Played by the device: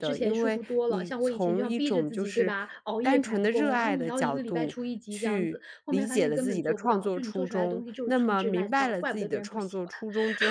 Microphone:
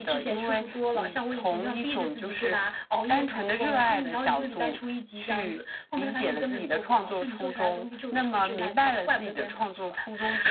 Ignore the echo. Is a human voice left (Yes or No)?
No